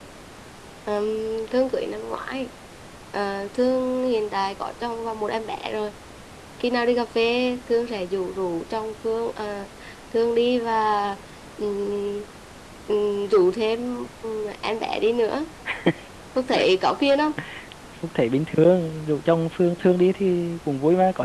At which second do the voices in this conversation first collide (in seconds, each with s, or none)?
none